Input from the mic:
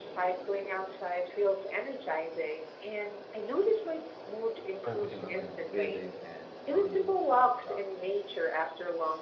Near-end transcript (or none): focusing on my breathing and surroundings while jogging.